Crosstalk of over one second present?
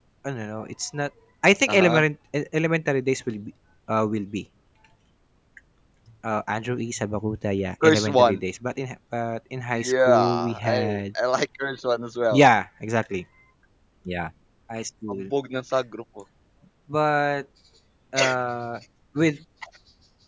Yes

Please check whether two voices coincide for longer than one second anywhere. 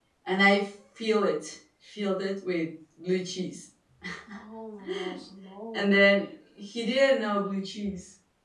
No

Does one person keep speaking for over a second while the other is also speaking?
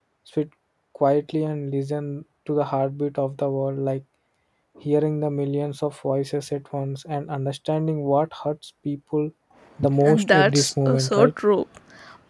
Yes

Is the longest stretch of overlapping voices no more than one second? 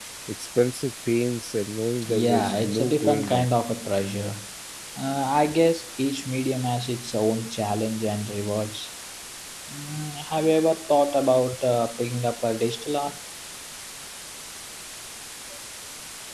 No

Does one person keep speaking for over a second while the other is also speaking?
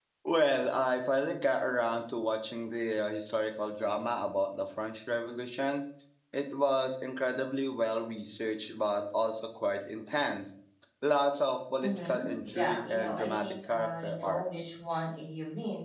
Yes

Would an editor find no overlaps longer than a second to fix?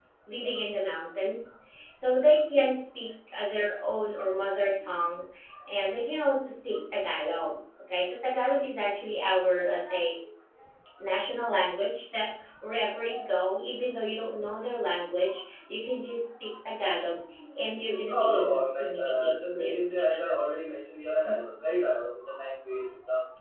No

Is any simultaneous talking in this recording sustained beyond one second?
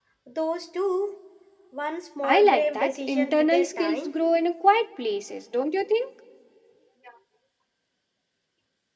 Yes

